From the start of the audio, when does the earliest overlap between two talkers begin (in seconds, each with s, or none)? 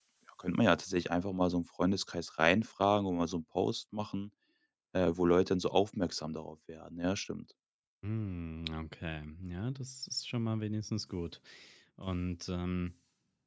none